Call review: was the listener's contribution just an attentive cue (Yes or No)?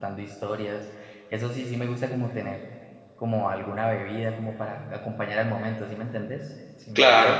No